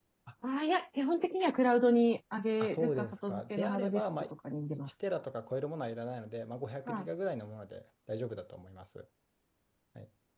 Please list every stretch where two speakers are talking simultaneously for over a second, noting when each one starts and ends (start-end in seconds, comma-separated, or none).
2.6-4.0